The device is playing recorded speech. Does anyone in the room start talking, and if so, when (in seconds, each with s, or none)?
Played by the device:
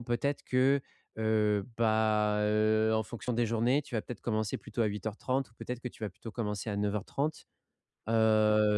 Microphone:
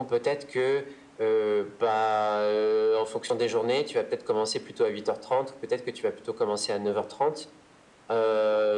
none